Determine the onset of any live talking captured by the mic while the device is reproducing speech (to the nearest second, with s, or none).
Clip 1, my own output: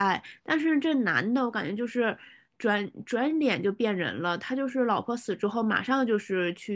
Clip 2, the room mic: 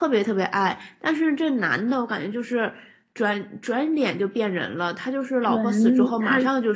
5 s